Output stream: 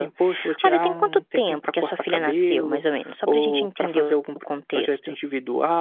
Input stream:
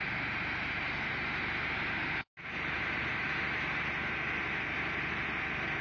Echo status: none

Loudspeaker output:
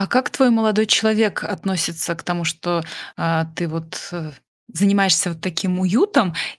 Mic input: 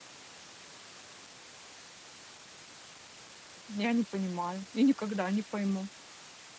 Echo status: none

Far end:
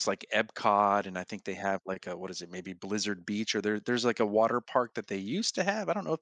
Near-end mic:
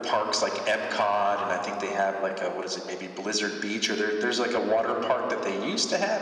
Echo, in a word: present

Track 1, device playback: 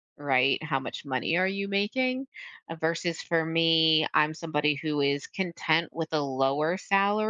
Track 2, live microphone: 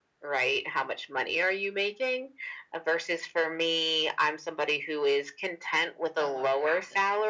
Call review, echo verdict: present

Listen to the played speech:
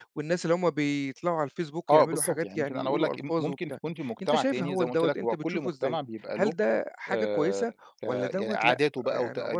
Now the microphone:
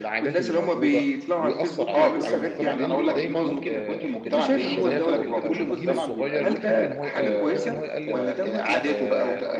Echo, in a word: present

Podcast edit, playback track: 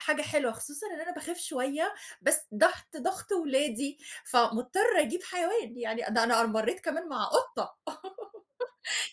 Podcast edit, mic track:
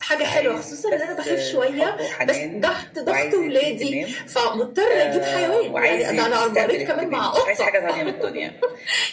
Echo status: present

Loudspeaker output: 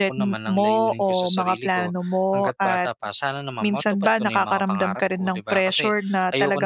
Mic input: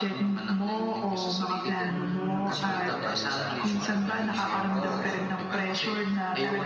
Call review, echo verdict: present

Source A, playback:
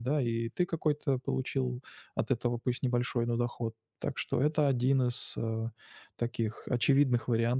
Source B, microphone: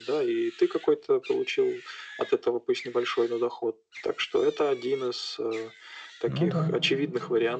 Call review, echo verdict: present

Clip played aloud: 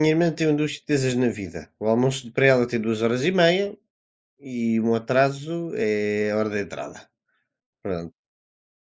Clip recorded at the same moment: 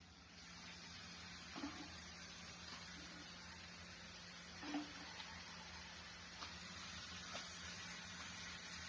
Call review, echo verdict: none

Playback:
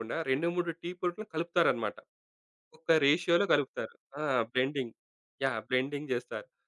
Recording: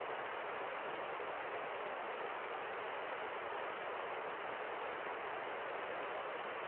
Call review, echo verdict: none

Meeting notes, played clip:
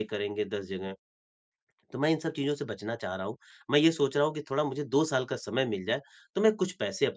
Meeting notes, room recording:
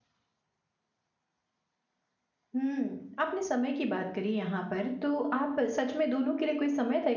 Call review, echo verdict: none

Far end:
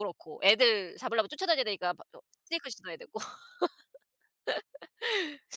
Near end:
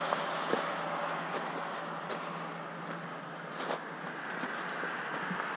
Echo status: none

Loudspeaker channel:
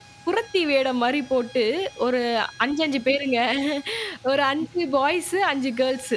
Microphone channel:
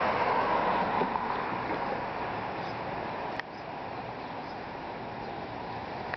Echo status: none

